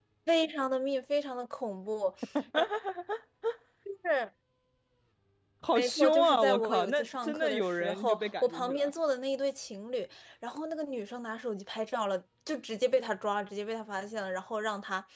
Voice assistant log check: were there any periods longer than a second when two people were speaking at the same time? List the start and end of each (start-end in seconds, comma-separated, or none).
5.8-8.9